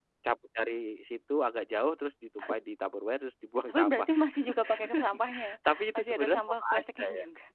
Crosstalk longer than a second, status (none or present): present